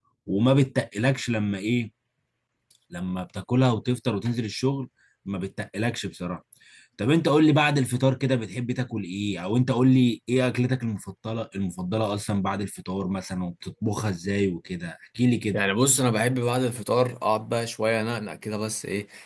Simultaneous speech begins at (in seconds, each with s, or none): none